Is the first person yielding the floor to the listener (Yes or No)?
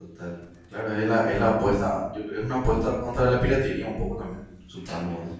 Yes